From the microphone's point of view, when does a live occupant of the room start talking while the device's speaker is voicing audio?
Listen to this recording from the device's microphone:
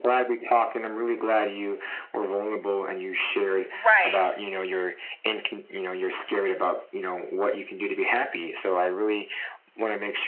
3.7 s

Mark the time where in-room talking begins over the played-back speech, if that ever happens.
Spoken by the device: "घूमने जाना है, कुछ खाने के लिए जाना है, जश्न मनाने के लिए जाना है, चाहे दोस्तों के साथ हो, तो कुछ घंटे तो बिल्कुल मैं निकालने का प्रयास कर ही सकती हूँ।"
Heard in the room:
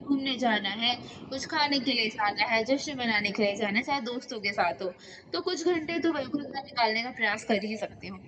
none

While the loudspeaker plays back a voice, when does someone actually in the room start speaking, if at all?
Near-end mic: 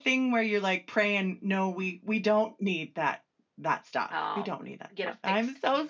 4.1 s

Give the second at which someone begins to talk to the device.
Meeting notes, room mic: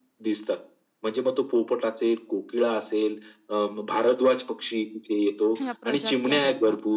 5.6 s

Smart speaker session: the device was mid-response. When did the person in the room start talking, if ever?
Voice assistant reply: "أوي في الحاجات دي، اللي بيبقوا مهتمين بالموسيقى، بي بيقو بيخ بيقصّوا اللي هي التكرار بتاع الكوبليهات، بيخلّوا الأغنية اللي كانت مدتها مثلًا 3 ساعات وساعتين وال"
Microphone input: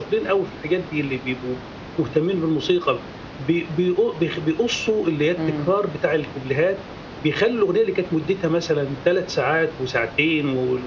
5.4 s

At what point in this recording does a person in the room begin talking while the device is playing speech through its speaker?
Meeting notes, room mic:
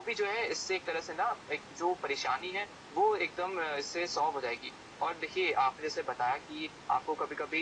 none

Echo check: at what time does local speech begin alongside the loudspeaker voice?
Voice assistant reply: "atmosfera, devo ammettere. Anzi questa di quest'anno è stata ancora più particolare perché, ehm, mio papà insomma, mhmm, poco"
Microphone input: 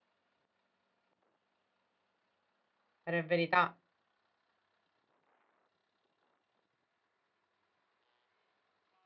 3.0 s

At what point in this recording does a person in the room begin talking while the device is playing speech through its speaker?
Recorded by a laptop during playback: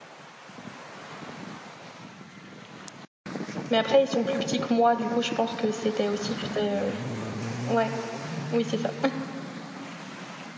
3.7 s

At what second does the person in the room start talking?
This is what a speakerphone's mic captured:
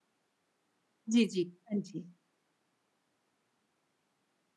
1.1 s

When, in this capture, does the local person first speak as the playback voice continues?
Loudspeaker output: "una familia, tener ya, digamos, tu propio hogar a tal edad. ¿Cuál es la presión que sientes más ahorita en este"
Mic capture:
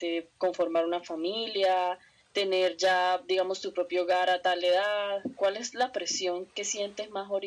none

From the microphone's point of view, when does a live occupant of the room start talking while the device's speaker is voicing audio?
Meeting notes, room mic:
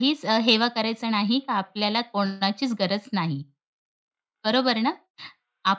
none

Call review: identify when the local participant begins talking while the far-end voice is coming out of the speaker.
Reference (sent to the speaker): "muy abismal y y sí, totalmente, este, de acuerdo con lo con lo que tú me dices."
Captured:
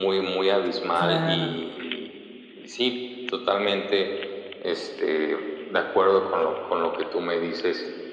0.9 s

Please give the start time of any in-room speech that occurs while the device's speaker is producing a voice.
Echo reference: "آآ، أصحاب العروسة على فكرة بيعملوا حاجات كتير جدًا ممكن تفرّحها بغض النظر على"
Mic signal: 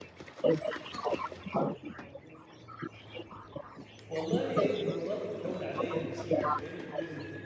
4.1 s

